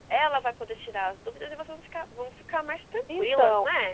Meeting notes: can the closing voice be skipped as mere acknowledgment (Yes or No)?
No